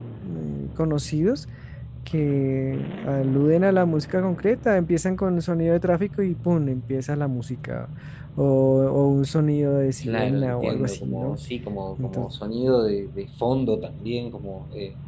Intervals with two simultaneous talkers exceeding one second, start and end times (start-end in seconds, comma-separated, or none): 10.1-11.4